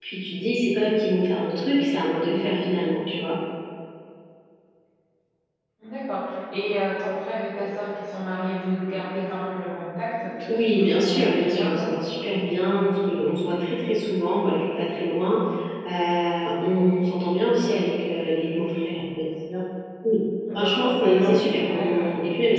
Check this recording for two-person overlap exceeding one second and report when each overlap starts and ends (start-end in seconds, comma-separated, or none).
10.7-11.9, 20.5-22.1